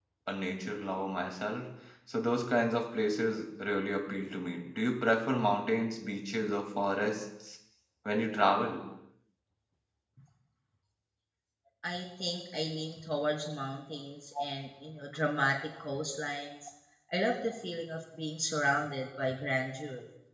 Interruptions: none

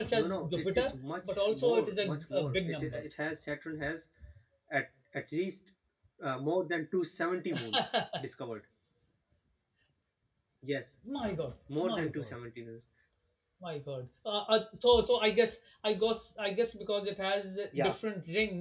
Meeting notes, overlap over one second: present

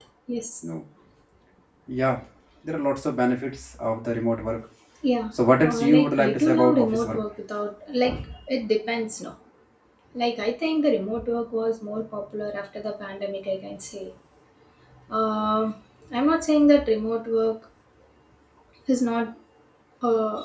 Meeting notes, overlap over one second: present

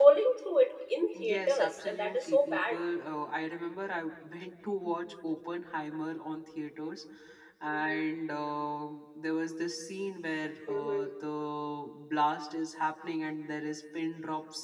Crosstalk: present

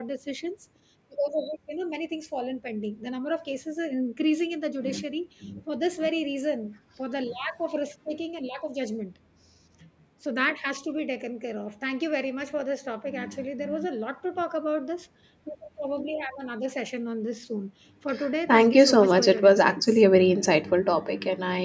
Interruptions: present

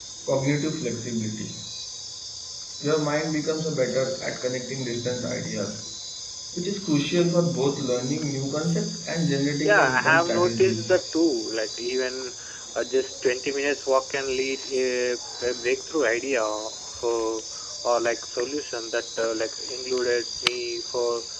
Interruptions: present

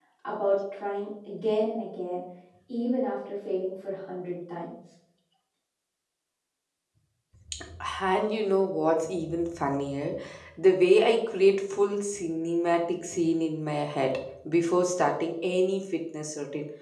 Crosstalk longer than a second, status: none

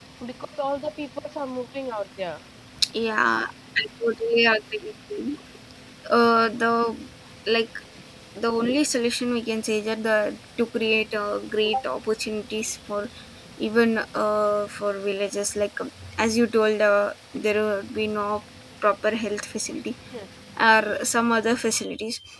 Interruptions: none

